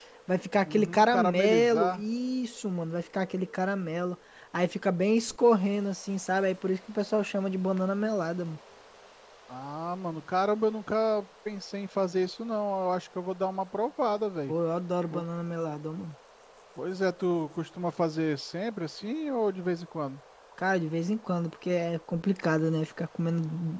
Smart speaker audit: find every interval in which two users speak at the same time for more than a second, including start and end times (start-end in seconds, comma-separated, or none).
0.7-2.0